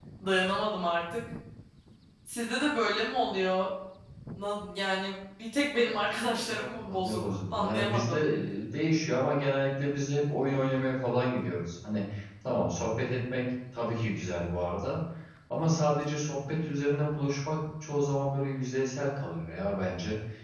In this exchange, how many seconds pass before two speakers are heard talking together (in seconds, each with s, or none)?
5.8 s